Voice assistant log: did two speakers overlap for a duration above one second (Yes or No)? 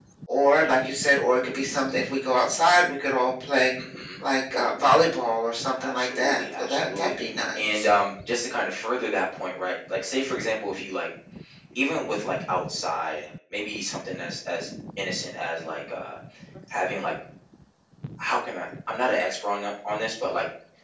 Yes